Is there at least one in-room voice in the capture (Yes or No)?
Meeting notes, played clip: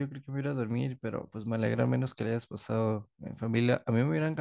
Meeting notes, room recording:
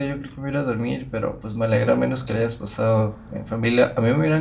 No